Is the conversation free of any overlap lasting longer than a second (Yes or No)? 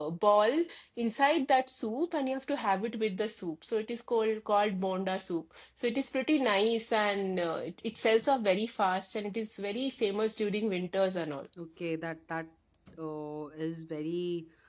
Yes